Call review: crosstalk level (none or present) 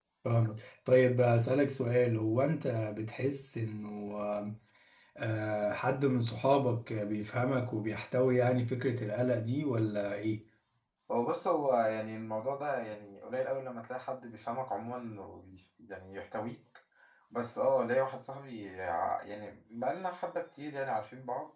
none